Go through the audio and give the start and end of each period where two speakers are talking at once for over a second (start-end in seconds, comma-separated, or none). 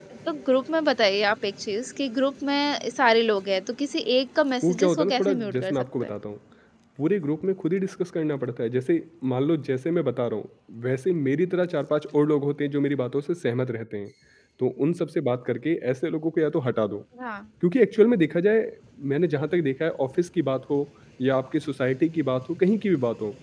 4.6-6.1